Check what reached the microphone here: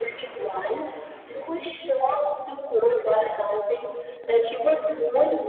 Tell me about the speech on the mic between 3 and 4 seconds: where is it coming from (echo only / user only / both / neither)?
echo only